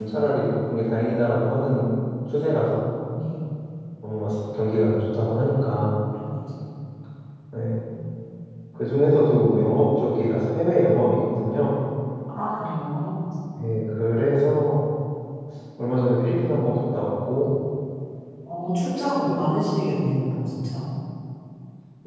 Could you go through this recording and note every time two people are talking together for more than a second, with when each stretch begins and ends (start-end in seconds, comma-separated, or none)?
none